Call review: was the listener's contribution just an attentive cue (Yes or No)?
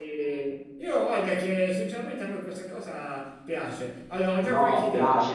No